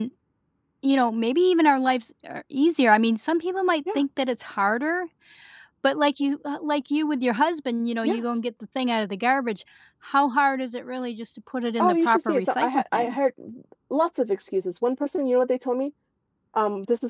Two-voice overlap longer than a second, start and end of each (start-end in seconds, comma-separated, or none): 11.8-13.2